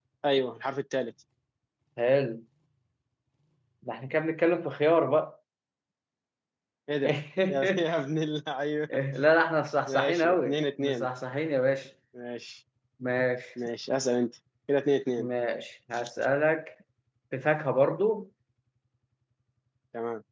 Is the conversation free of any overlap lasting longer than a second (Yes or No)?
No